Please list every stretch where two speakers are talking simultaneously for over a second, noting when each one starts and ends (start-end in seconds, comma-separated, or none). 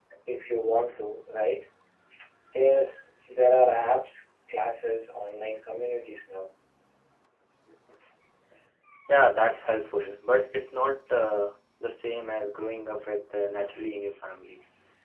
none